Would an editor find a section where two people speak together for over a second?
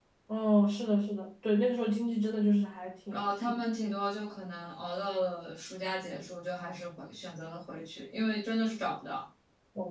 No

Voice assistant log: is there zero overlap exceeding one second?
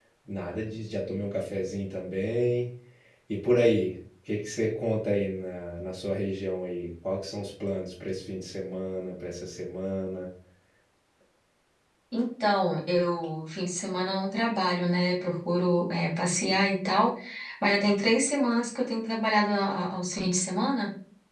Yes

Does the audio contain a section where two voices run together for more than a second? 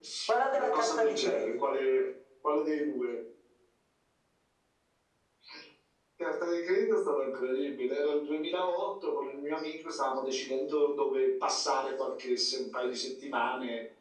Yes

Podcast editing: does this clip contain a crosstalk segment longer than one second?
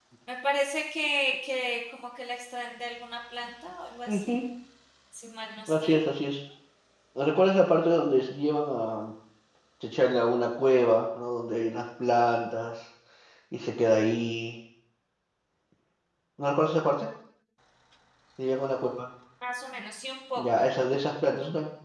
No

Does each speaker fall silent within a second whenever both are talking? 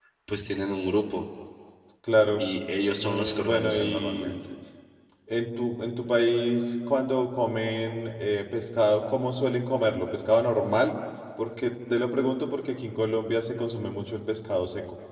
No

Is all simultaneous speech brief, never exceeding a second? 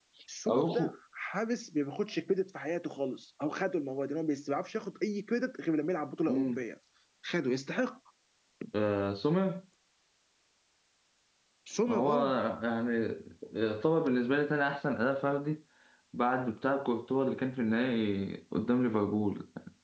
Yes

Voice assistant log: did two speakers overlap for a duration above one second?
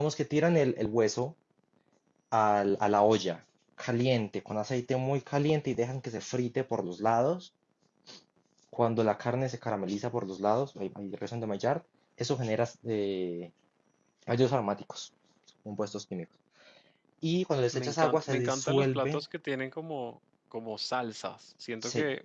Yes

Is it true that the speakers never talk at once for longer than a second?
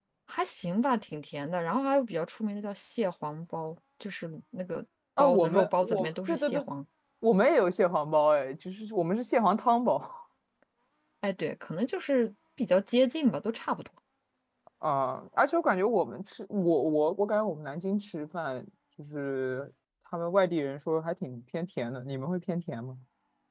No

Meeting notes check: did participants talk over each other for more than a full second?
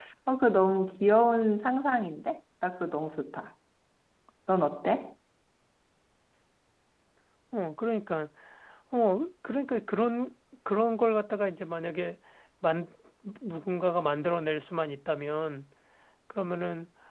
No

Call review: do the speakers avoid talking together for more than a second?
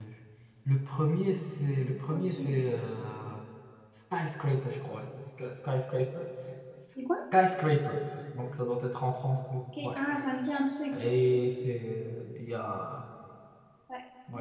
Yes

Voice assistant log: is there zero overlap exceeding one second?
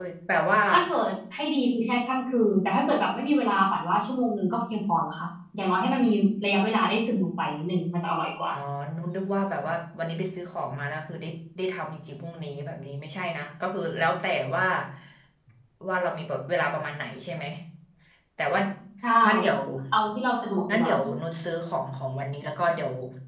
Yes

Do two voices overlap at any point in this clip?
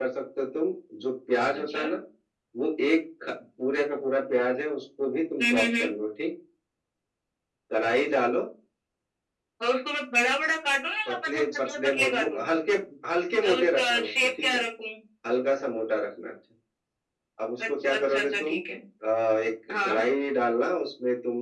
Yes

